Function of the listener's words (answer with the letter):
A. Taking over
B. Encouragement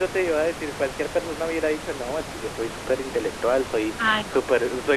B